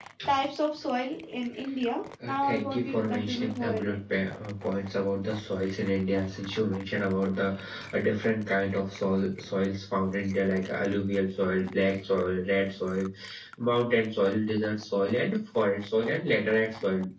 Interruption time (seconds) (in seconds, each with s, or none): 2.2 s